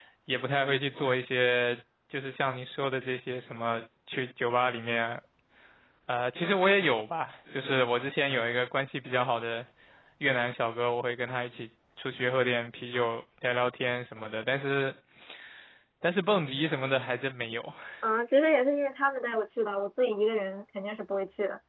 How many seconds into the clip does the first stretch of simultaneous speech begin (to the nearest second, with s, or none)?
none